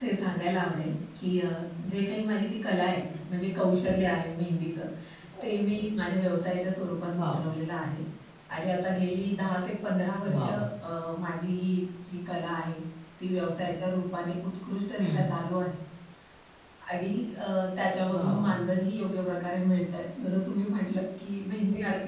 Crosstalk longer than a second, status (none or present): none